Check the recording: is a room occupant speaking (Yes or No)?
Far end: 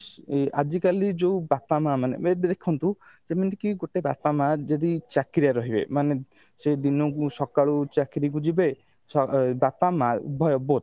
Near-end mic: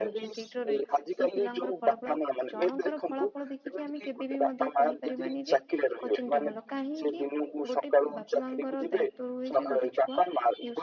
Yes